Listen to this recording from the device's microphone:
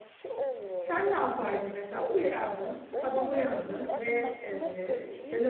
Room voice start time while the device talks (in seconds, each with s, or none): 0.8 s